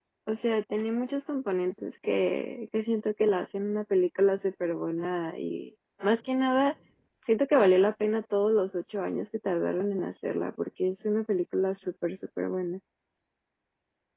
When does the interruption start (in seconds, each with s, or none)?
none